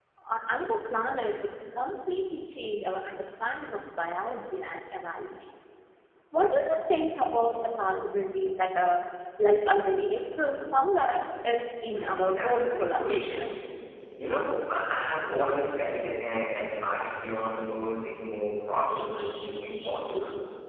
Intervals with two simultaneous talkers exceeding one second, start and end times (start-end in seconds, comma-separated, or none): 11.9-13.5